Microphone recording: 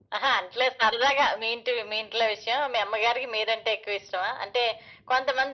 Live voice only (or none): none